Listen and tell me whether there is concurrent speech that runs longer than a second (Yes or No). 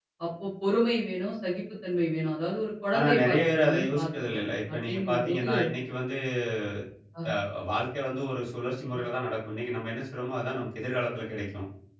Yes